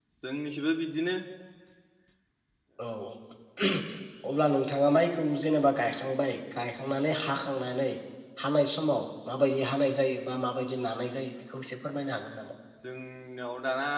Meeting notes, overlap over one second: none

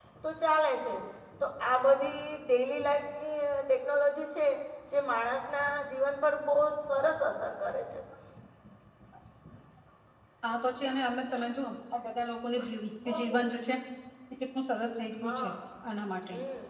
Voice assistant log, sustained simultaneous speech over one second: none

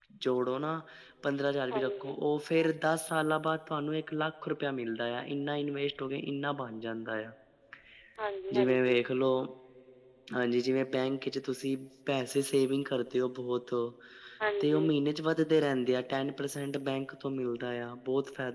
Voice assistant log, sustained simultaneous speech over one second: none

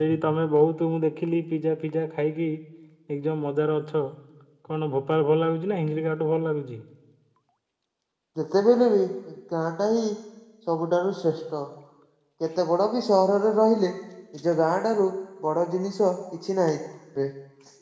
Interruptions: none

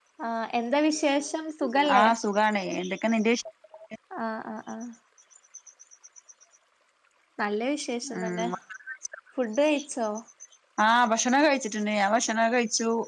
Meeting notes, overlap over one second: none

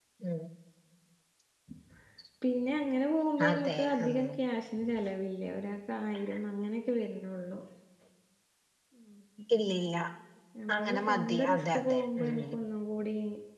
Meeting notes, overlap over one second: present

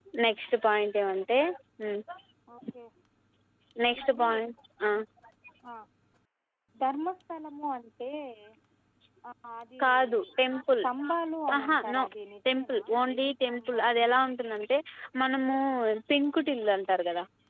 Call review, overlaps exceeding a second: present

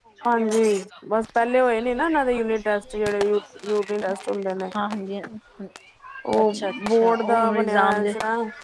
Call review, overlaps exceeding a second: present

